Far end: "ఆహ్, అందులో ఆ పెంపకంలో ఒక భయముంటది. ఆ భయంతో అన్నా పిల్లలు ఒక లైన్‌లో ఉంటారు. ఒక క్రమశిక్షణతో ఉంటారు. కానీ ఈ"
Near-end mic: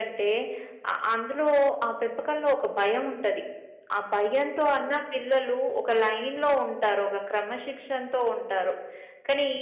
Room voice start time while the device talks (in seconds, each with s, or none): none